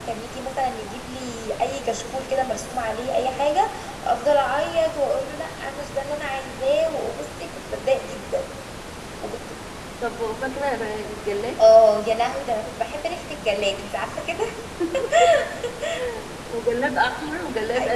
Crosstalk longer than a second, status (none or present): none